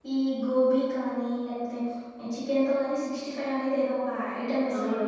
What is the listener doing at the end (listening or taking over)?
listening